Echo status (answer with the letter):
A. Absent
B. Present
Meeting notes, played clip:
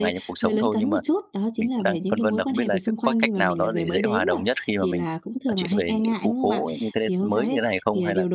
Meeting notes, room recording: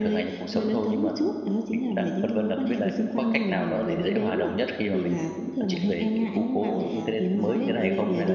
B